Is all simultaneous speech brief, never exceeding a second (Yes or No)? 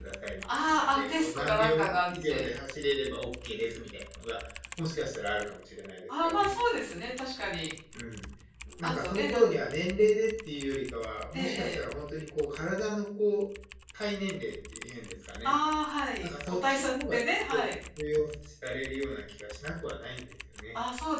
No